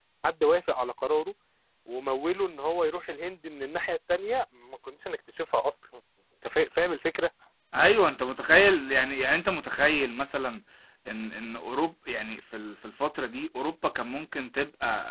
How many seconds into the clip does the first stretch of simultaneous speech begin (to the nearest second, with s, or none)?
none